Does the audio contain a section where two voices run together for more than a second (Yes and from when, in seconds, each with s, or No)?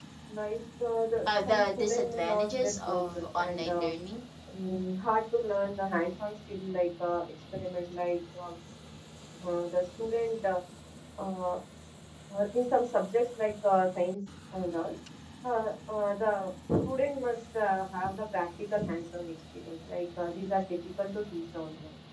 Yes, from 1.2 s